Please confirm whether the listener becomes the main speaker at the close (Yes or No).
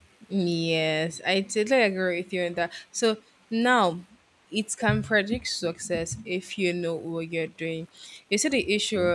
No